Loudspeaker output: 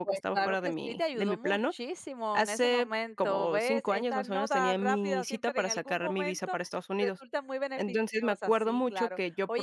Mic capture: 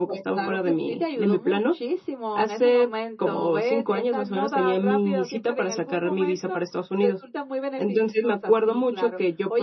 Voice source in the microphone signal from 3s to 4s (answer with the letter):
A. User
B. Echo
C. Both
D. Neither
B